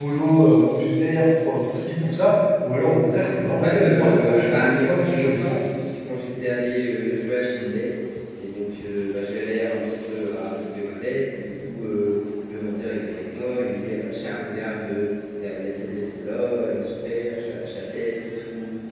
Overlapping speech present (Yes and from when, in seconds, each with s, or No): Yes, from 3.6 s